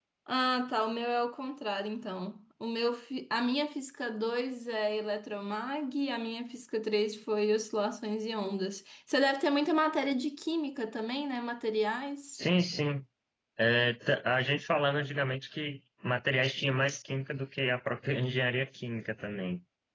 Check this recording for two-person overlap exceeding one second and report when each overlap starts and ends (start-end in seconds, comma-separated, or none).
none